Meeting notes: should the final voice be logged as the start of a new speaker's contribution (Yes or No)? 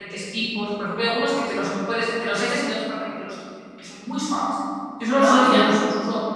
No